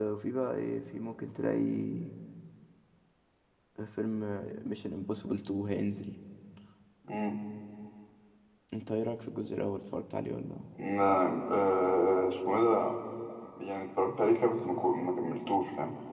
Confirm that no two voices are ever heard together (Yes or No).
Yes